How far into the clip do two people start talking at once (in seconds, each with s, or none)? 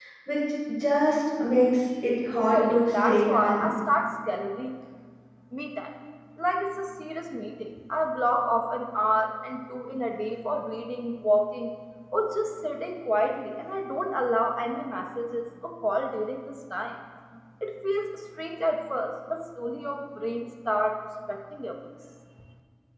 2.3 s